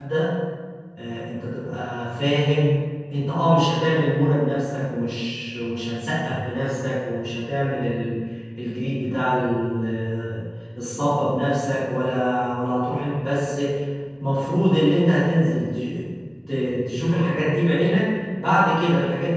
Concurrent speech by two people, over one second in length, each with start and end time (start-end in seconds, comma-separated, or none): none